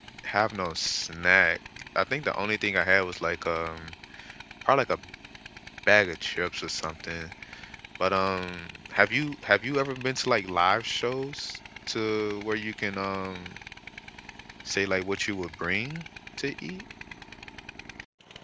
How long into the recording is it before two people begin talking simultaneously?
none

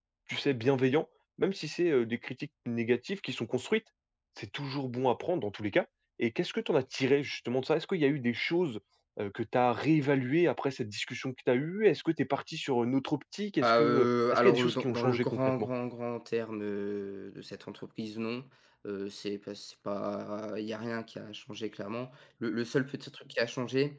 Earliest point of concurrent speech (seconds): 13.6 s

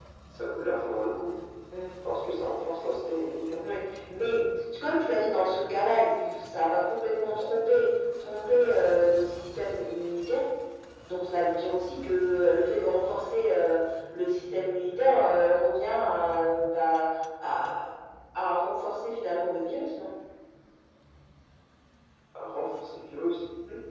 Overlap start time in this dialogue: none

